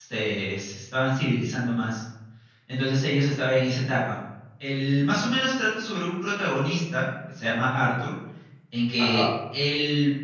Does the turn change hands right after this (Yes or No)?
No